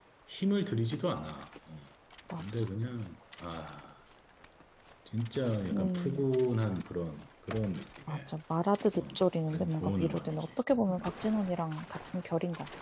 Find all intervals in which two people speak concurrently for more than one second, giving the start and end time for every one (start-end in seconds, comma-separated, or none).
9.0-10.5